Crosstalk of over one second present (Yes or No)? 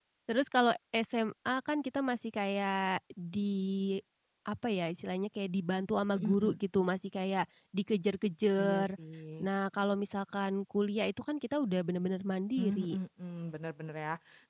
No